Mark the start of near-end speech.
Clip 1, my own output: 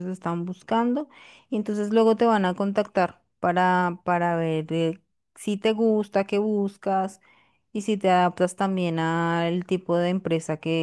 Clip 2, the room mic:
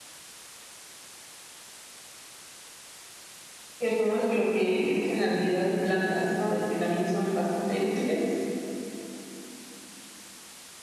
4 s

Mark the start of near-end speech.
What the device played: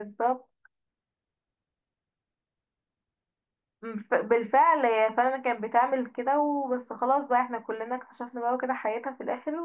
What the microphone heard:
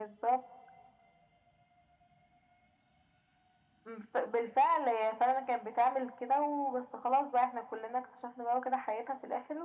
none

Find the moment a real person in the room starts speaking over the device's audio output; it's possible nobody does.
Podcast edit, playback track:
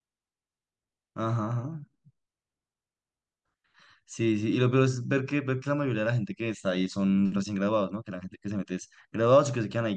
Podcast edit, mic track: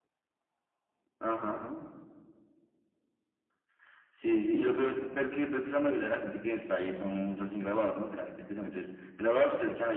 none

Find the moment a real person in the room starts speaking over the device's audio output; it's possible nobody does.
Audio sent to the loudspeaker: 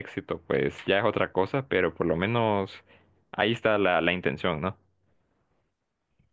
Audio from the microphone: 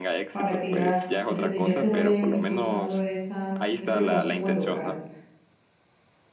0 s

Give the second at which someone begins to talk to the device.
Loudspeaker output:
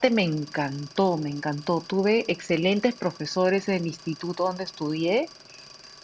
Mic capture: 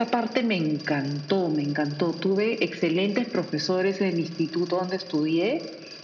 none

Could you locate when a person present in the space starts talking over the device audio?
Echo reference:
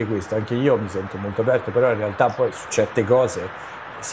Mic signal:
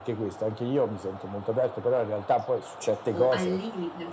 3 s

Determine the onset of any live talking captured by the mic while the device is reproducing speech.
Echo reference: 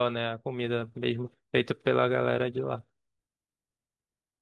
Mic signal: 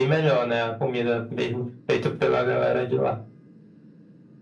none

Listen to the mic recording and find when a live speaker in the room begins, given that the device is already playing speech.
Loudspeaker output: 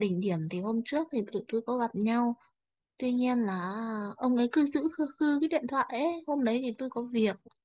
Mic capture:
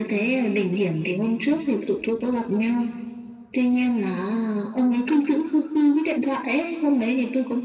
none

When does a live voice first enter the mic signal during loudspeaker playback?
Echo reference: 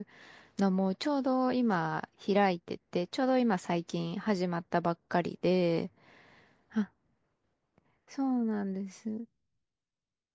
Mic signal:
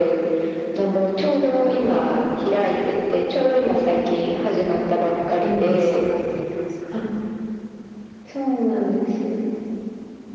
5 s

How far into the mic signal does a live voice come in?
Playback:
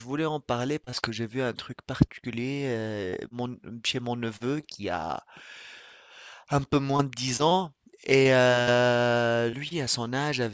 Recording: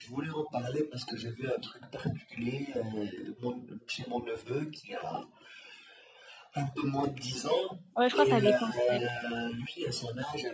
8 s

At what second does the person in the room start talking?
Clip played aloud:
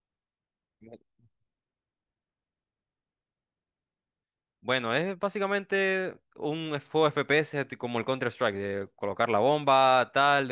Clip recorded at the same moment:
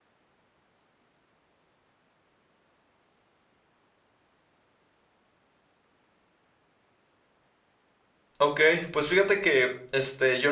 8 s

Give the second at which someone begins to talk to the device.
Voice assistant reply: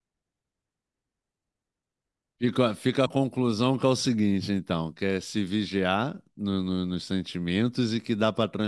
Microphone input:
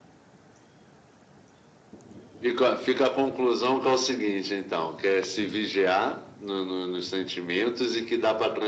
none

